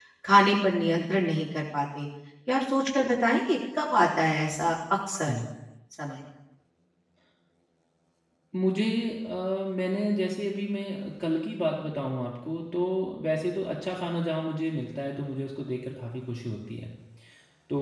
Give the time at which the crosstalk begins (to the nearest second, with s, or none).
none